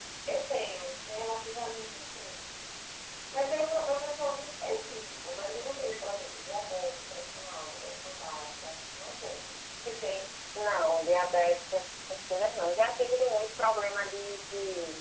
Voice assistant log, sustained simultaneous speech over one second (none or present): none